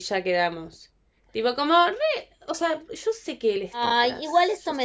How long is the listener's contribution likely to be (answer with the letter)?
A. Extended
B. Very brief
A